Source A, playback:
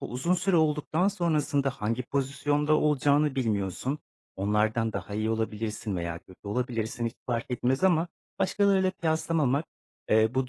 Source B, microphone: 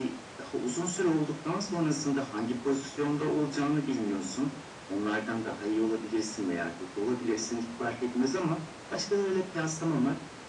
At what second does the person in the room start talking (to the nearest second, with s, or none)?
none